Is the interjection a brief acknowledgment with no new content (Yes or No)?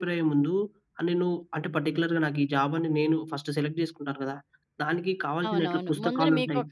No